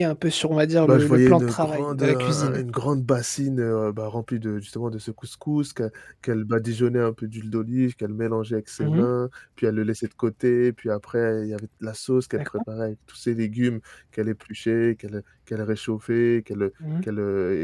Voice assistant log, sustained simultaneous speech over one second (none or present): present